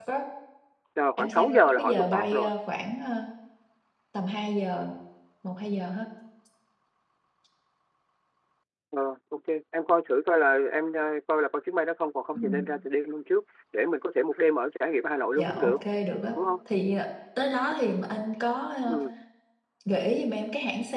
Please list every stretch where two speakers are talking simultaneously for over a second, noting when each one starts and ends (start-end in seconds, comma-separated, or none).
1.2-2.5